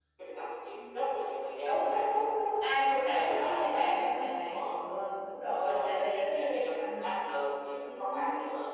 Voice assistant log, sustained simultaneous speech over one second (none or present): present